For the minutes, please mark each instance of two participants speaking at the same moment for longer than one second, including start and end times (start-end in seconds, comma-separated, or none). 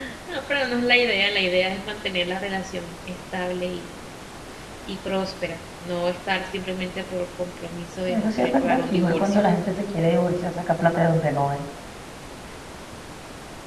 8.1-9.4